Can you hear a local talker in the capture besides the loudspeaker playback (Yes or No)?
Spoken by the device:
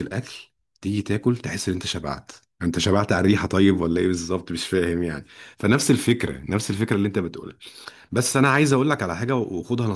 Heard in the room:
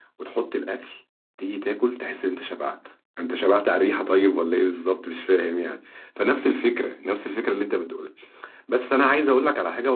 No